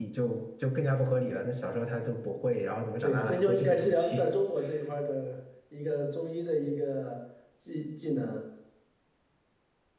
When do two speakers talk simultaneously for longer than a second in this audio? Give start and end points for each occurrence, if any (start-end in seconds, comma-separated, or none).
3.0-4.3